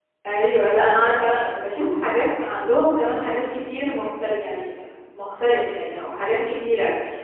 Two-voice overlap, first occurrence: none

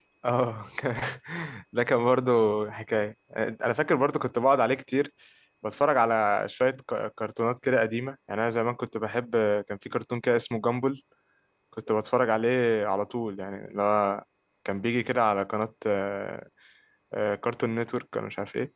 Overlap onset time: none

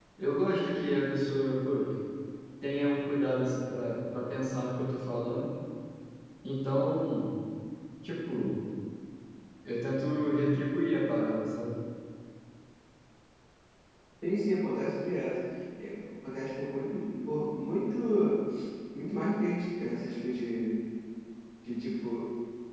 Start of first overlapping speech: none

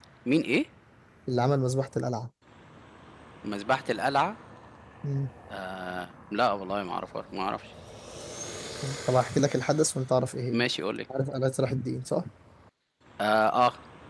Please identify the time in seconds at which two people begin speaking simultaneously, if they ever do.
none

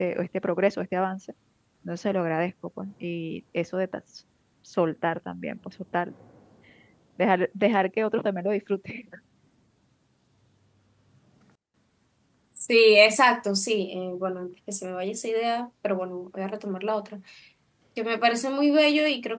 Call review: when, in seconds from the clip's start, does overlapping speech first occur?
none

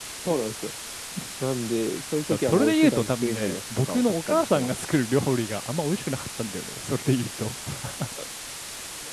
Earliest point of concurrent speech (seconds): 2 s

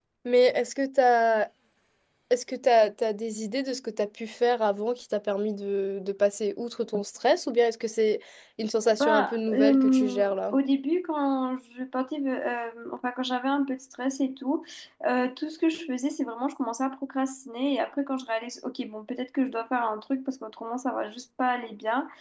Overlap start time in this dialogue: 9 s

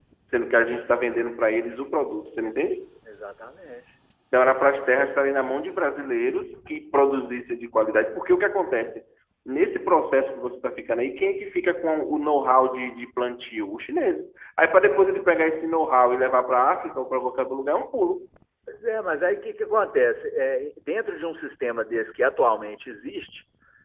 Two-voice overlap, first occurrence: none

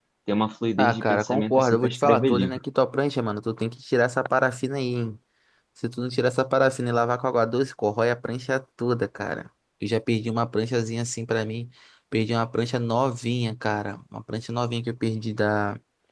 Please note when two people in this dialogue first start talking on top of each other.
1 s

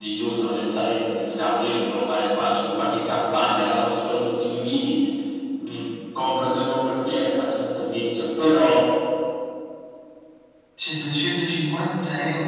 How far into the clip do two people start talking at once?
none

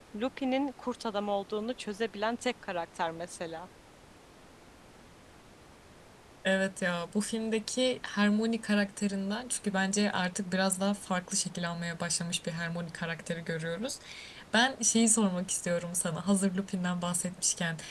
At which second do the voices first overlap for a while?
none

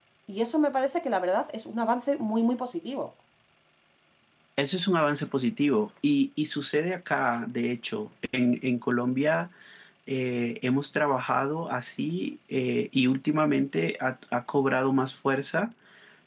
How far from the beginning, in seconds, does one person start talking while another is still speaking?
none

